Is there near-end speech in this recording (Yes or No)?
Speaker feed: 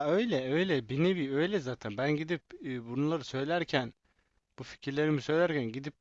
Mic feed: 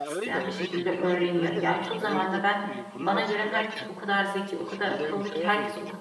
Yes